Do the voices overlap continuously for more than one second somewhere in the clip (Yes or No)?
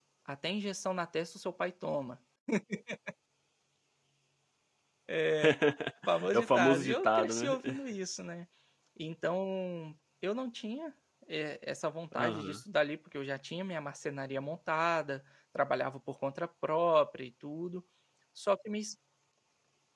Yes